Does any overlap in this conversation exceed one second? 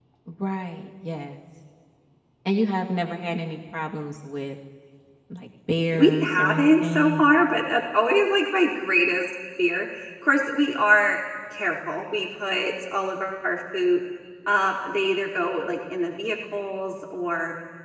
Yes, from 5.9 s

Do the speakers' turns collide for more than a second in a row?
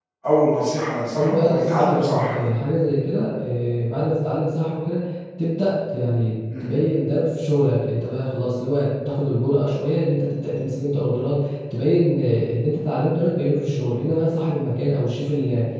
Yes, from 1.1 s

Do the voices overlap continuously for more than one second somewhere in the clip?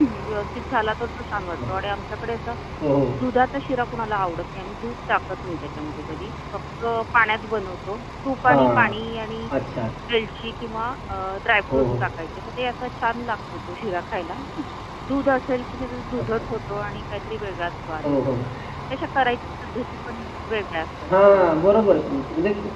No

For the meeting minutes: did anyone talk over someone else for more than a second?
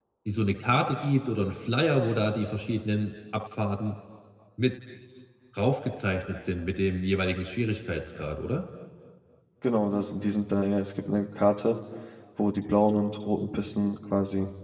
No

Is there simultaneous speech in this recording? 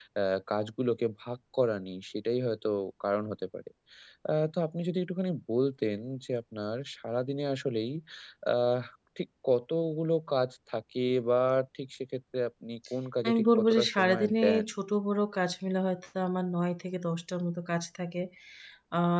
Yes, from 13.2 s

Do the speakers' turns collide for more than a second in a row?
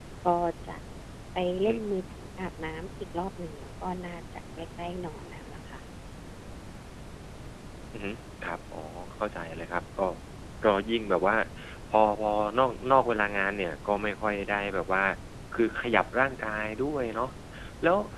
No

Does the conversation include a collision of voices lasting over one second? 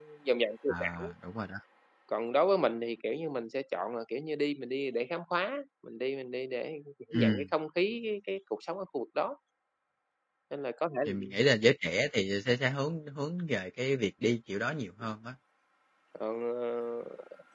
No

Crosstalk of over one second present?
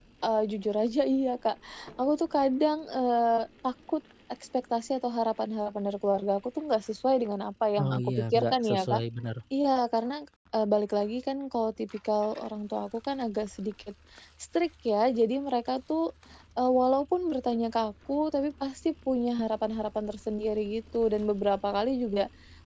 Yes, from 7.8 s

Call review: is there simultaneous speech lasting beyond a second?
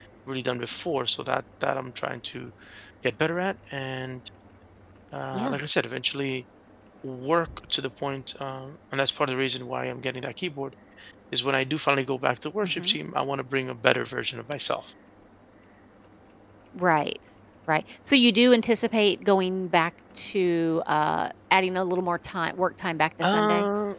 No

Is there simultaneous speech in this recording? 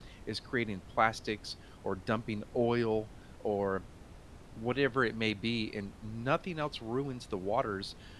No

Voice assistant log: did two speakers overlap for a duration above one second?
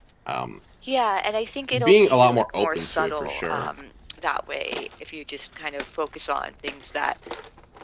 Yes, from 1.7 s

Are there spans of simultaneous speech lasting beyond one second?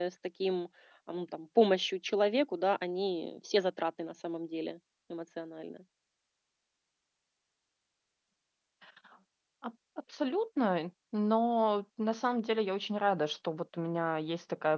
No

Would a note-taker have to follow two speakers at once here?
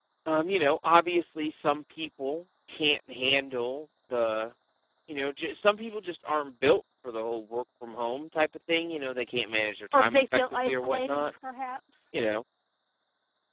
Yes, from 9.9 s

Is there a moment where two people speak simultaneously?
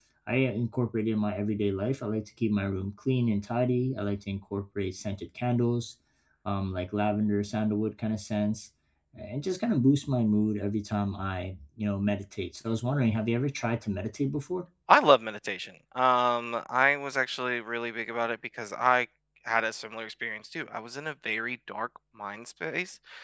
No

